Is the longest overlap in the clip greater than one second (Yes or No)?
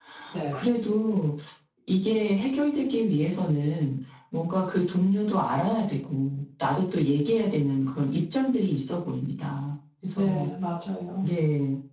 No